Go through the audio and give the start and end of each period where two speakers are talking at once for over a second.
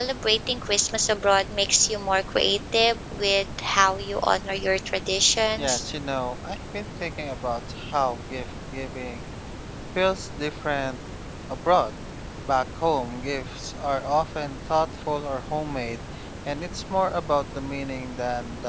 none

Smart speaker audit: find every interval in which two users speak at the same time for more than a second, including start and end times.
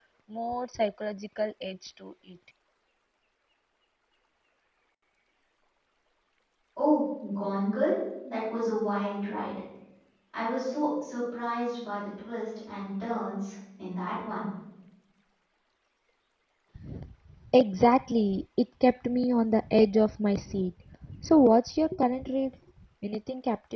none

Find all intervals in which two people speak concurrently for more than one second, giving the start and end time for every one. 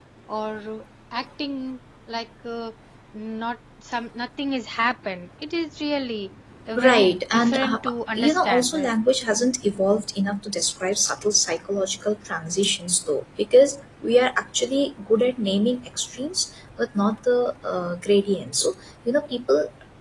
6.8-8.9

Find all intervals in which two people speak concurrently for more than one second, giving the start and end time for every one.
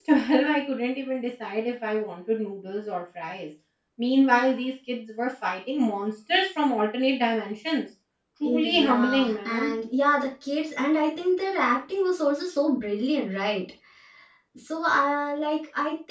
8.4-9.8

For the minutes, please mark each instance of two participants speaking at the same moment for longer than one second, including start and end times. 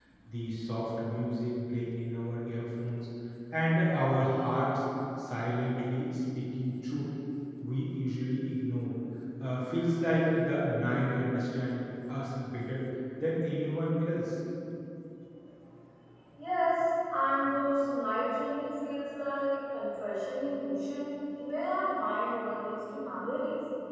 none

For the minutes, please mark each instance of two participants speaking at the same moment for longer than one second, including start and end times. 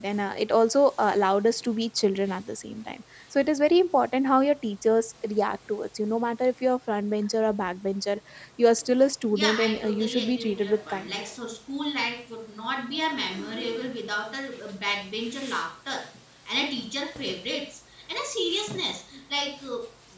9.3-11.3

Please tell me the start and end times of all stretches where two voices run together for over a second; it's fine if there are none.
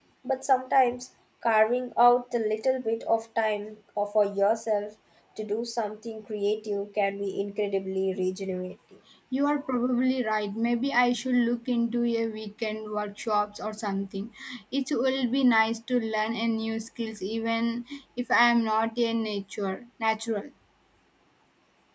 none

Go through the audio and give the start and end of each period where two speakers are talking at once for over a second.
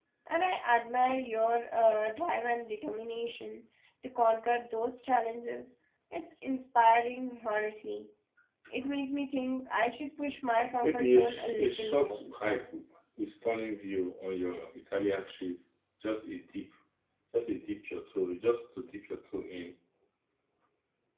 10.8-12.2

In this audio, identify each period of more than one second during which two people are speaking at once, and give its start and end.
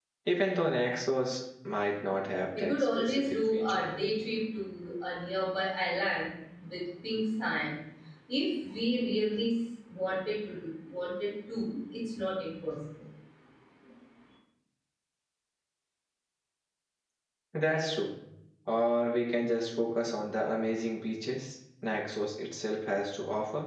2.6-3.9

